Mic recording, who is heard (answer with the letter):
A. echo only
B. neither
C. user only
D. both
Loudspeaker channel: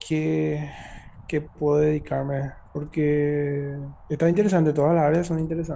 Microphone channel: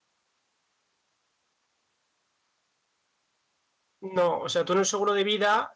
C